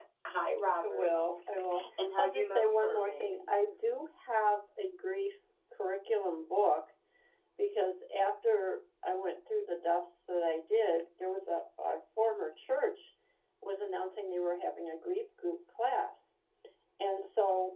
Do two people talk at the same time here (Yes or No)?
Yes